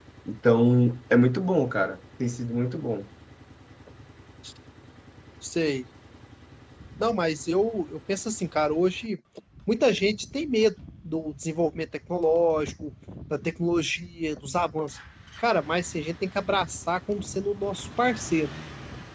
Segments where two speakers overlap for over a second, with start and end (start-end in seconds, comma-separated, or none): none